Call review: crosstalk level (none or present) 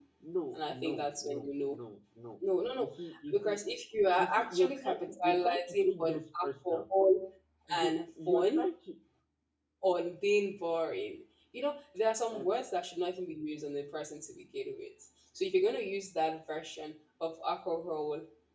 present